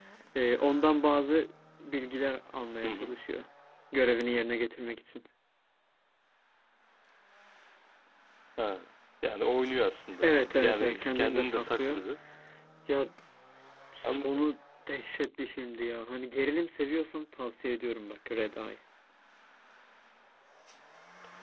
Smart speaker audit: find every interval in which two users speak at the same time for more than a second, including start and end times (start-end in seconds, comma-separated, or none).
10.2-12.0